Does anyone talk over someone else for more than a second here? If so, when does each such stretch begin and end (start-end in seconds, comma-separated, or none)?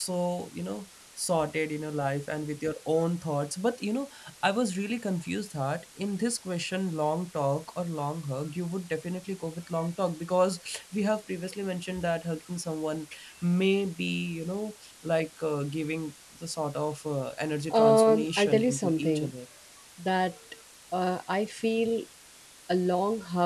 17.7-19.3